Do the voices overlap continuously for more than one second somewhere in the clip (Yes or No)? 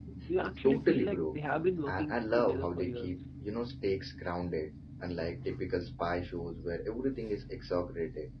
Yes